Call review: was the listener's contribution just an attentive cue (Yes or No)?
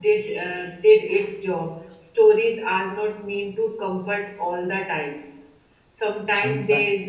Yes